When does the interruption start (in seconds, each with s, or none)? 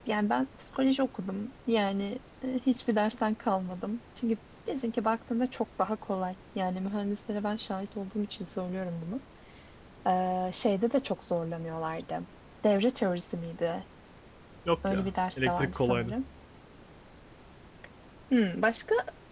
14.8 s